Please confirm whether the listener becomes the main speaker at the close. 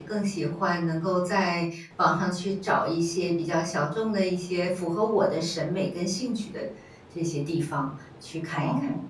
Yes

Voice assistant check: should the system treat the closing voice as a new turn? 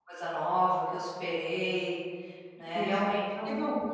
Yes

